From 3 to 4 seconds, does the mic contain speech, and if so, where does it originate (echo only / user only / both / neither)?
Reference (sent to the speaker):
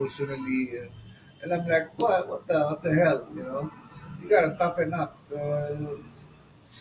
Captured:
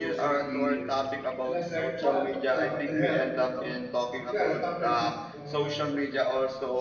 both